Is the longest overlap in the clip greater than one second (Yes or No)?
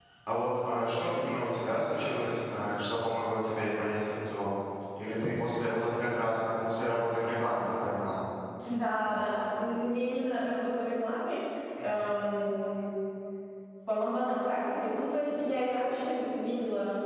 No